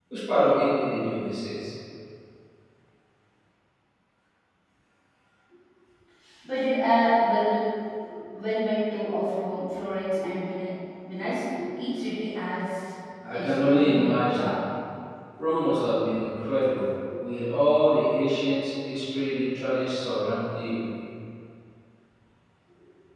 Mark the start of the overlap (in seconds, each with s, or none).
13.2 s